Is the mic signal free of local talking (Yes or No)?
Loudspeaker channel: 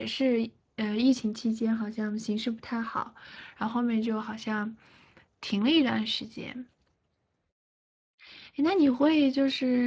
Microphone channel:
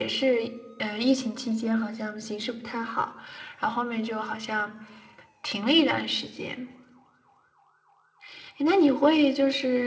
Yes